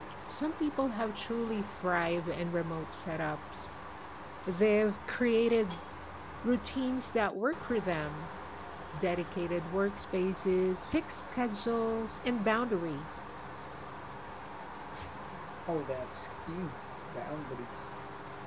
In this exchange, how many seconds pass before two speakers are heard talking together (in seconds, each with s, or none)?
none